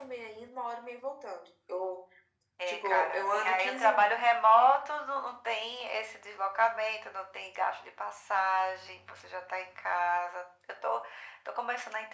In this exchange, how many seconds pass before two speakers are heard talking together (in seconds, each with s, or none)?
2.7 s